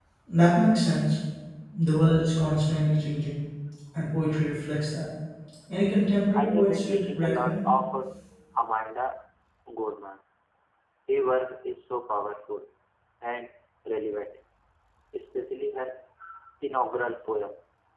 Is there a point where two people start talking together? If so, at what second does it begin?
6 s

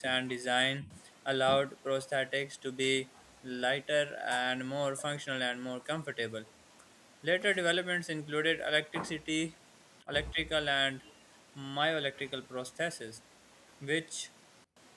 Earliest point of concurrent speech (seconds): none

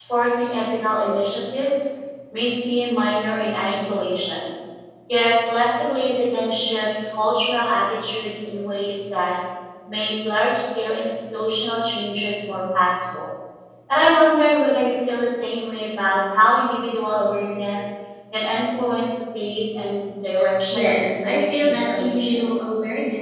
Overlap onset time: 21 s

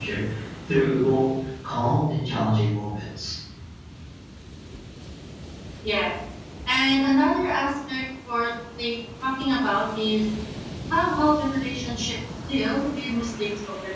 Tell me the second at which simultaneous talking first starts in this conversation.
none

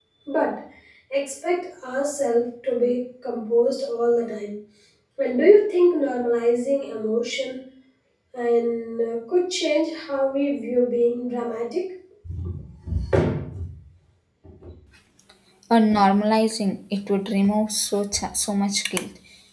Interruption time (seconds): none

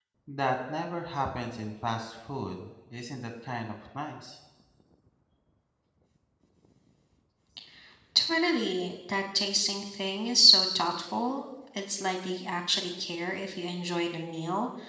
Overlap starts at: none

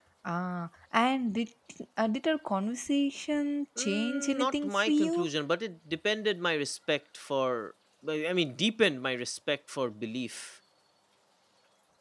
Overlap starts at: 4 s

